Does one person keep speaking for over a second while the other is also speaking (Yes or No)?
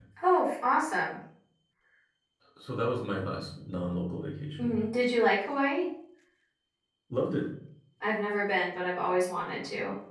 No